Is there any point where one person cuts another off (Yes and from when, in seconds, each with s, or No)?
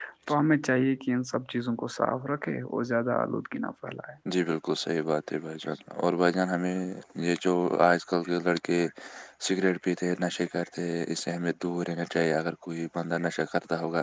No